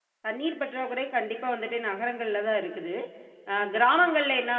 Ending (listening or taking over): listening